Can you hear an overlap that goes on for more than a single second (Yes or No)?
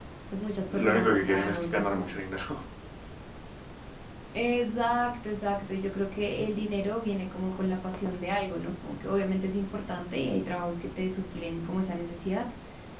Yes